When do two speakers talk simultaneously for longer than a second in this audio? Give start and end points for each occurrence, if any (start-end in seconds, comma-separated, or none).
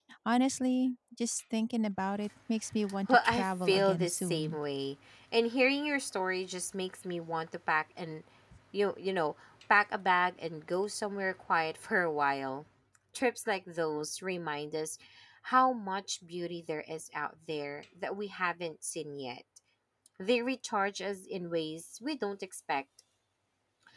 3.1-4.6